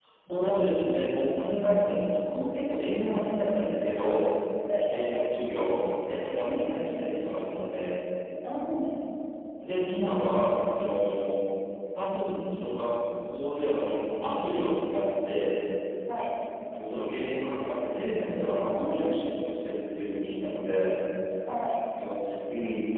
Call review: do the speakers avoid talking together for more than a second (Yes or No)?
Yes